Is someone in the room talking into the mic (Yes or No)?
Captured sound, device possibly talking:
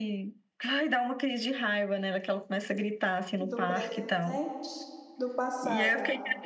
Yes